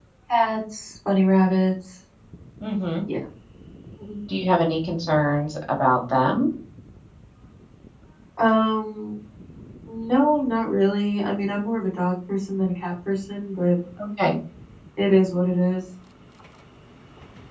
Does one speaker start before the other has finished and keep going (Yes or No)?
No